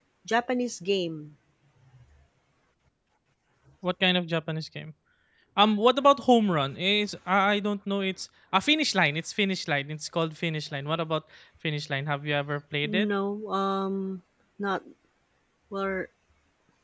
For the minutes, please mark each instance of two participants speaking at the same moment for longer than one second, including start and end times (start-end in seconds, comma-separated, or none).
none